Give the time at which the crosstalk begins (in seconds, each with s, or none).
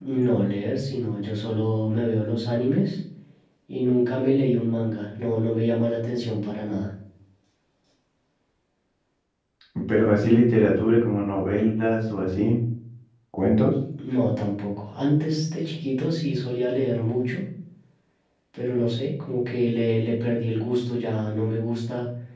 none